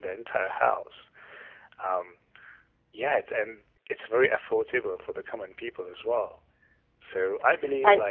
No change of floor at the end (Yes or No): Yes